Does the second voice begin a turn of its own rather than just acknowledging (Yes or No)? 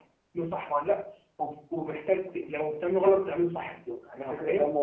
Yes